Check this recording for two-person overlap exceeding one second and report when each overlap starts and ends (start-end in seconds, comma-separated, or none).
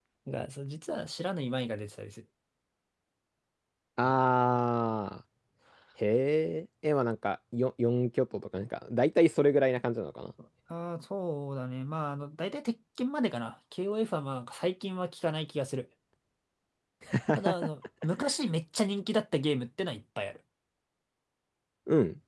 none